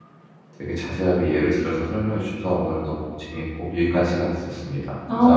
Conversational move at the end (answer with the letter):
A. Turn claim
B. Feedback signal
A